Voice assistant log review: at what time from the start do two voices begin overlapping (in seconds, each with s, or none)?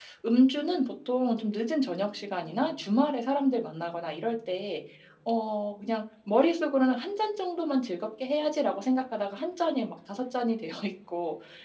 none